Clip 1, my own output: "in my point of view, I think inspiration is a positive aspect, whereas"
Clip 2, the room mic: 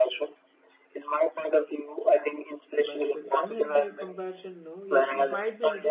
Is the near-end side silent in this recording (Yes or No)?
No